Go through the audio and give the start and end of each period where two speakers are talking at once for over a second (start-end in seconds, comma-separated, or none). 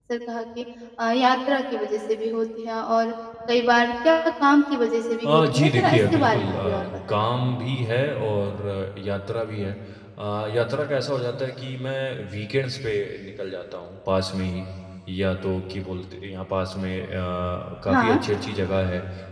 5.2-7.3